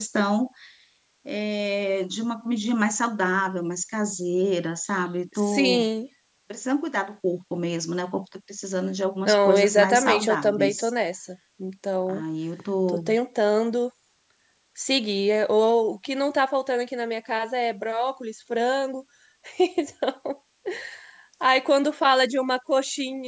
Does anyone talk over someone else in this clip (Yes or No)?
Yes